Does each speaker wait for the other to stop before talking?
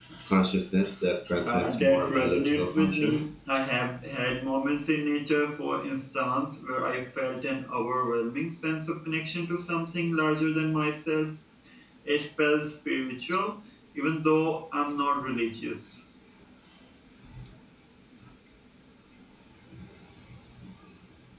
No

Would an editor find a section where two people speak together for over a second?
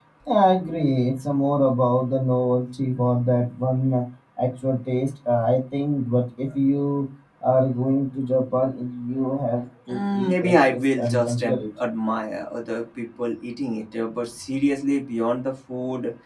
Yes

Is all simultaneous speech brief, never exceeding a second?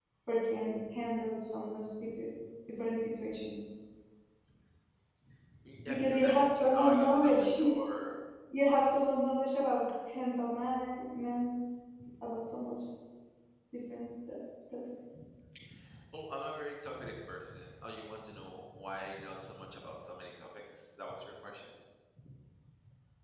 No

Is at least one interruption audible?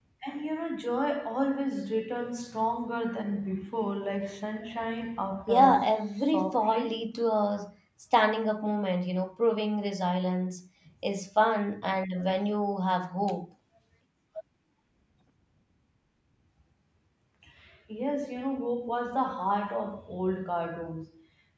Yes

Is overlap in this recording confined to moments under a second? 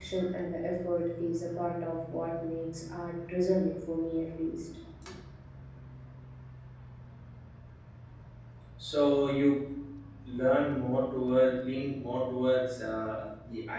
Yes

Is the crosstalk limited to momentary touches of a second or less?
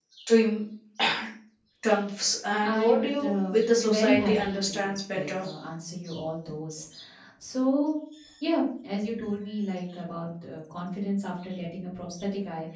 No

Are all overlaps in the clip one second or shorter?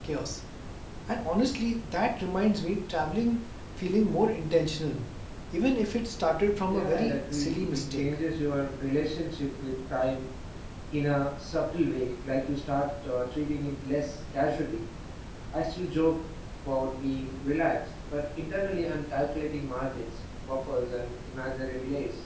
No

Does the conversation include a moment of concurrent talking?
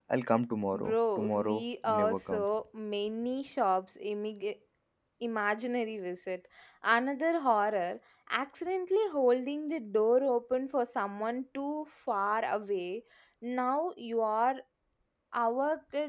Yes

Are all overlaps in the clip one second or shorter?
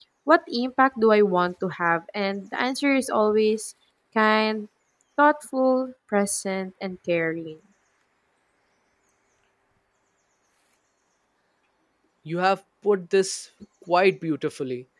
Yes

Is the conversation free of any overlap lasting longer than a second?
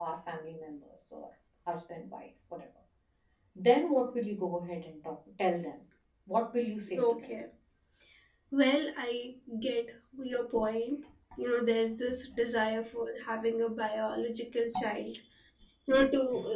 Yes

